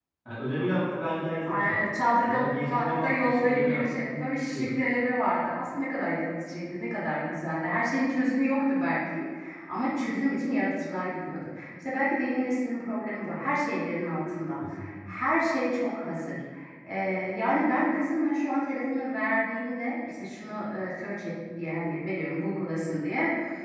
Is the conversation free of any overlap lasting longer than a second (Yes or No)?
No